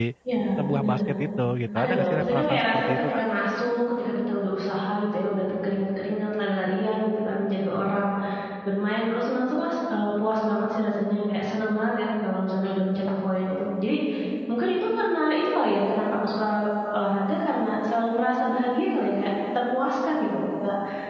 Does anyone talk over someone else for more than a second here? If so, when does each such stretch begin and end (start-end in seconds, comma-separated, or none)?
1.8-3.2